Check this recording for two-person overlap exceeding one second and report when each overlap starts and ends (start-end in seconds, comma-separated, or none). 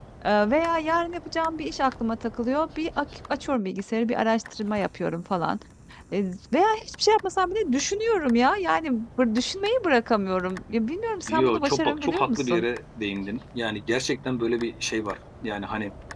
11.3-12.7